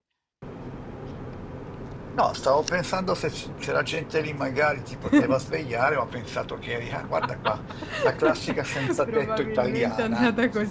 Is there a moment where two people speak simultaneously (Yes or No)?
Yes